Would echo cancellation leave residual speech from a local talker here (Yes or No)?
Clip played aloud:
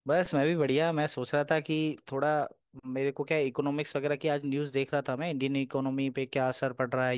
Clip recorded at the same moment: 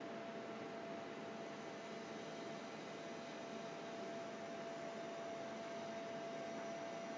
No